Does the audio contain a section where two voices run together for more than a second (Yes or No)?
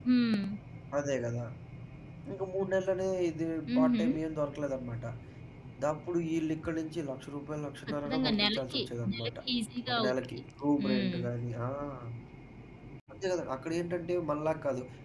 Yes